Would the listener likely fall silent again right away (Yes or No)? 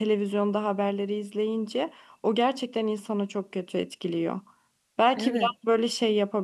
Yes